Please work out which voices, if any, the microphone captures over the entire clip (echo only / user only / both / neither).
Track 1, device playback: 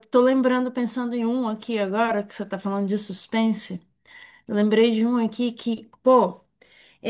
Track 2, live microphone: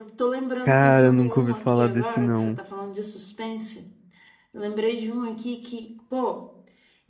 both